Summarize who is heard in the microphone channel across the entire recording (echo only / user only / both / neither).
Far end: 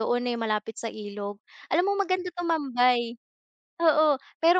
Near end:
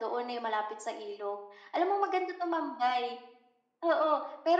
echo only